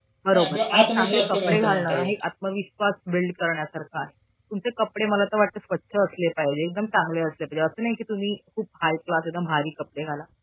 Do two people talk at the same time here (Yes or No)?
Yes